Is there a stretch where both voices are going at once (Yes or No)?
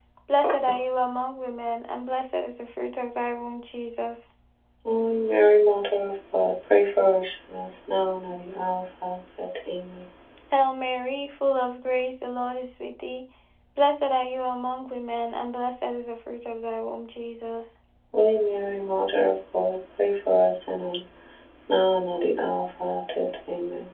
No